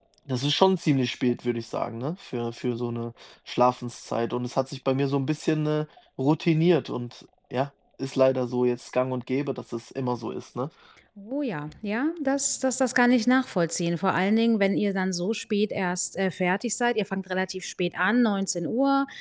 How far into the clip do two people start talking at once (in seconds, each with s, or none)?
none